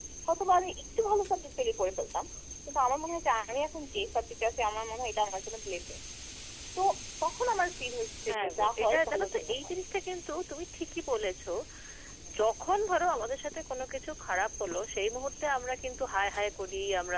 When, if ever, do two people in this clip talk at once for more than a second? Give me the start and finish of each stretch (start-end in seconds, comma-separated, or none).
8.3-9.7